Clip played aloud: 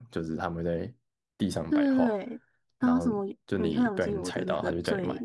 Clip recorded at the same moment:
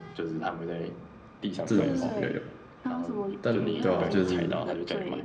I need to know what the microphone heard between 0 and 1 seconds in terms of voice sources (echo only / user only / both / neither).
echo only